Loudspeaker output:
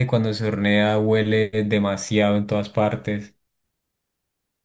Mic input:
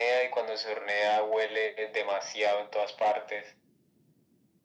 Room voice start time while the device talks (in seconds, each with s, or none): none